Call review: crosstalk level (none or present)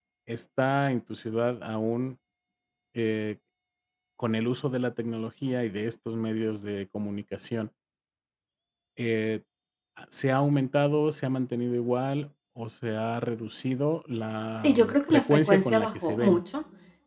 present